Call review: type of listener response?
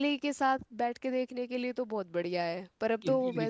taking over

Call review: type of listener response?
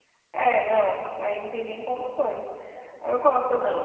listening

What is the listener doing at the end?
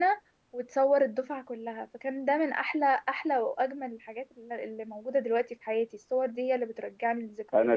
taking over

